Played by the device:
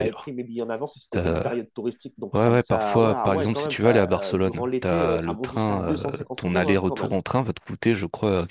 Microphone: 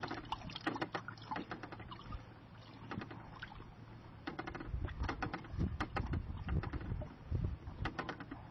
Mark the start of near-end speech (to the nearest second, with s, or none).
none